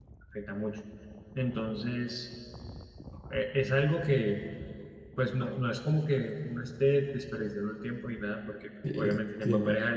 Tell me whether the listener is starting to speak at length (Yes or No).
No